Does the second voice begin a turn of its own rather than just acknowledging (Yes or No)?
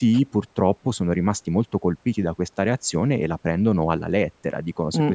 No